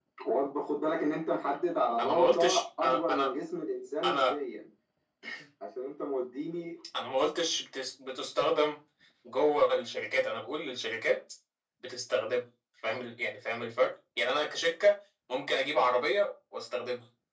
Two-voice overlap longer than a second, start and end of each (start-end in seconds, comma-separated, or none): 2.0-3.3